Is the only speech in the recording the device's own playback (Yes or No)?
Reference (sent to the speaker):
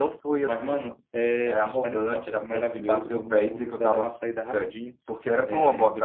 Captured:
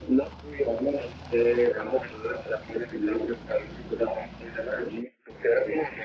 Yes